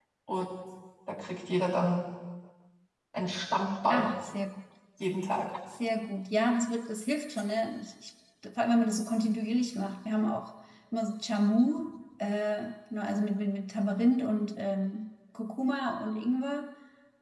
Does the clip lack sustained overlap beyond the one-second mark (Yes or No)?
Yes